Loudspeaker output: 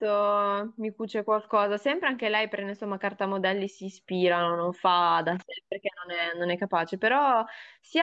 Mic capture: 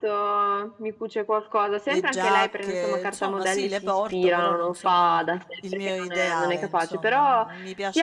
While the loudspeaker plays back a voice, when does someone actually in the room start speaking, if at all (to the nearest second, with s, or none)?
2 s